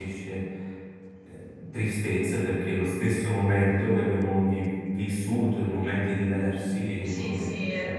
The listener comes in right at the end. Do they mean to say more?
Yes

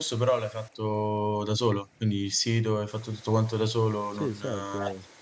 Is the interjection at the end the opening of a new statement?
Yes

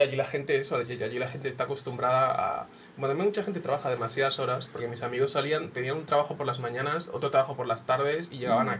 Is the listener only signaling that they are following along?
Yes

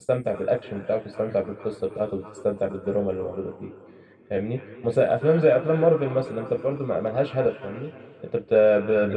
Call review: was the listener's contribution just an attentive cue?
Yes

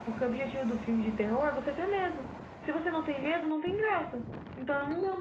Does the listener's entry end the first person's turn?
Yes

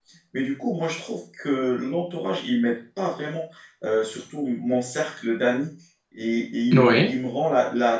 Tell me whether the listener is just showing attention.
Yes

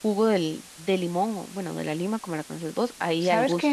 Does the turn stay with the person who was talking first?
No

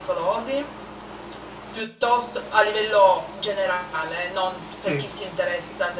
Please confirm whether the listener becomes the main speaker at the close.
No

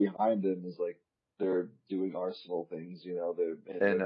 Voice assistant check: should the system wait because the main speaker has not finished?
Yes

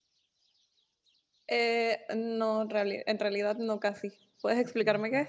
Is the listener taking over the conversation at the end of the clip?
Yes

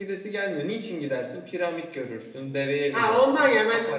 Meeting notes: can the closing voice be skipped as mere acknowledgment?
No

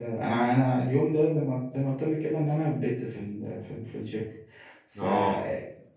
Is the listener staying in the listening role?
Yes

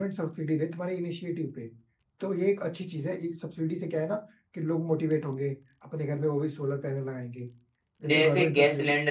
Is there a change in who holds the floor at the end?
Yes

